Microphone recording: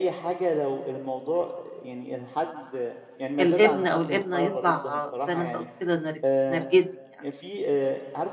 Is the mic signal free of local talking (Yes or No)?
No